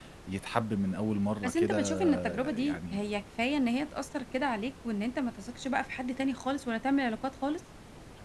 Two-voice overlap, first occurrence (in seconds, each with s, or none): 1.4 s